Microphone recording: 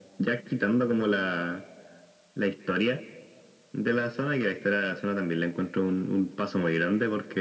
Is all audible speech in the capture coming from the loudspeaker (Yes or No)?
Yes